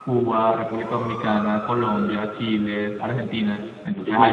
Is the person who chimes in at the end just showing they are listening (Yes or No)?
Yes